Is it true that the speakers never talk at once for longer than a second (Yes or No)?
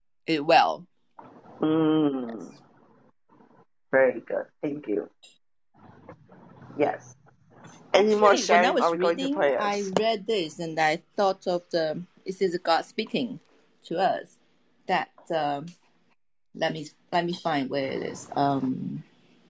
No